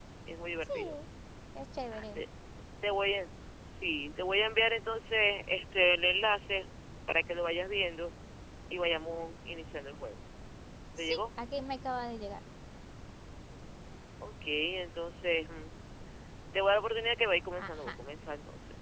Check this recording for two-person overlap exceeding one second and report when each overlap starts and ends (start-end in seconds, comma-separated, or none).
none